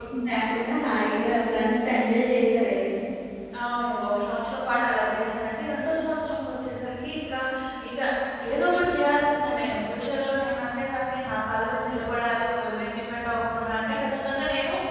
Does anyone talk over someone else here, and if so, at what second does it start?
none

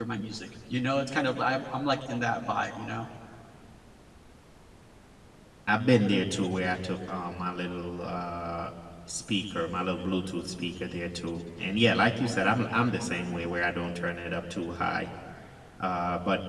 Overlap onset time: none

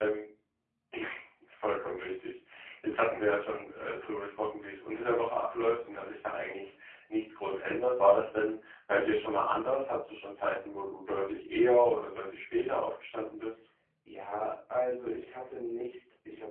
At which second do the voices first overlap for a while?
none

